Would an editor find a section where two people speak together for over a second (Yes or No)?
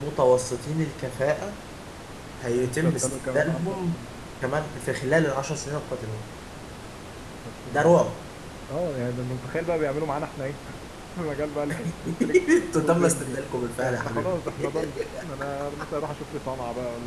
Yes